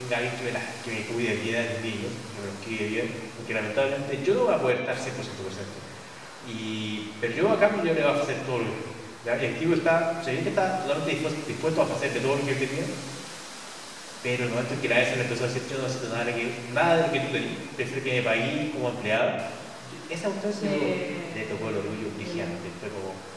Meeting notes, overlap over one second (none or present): present